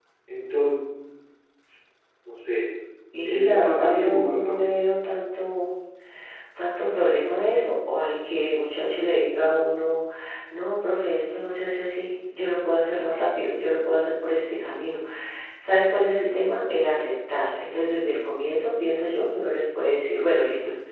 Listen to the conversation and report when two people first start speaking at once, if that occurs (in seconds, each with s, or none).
3.2 s